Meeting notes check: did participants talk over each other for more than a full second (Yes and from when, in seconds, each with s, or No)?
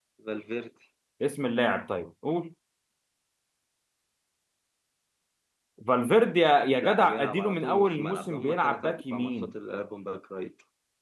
Yes, from 6.8 s